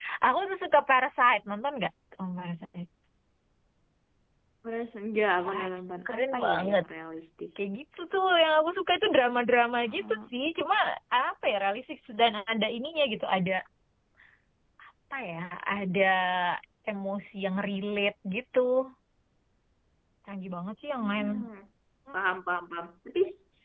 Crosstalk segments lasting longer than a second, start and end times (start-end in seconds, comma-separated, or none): 5.5-6.8